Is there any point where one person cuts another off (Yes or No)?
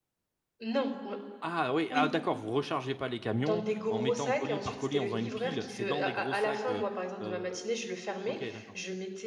Yes